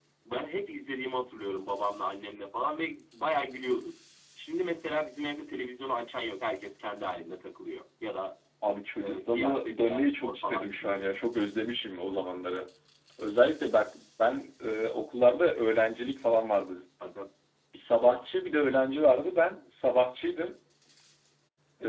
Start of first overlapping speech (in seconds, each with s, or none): 9.0 s